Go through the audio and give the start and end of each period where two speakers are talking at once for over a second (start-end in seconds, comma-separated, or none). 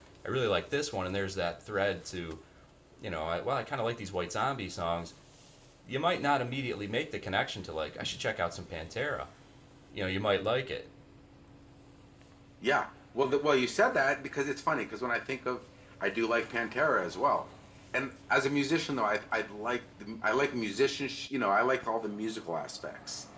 none